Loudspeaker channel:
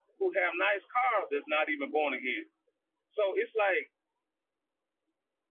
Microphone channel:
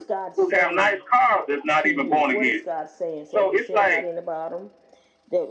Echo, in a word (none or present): present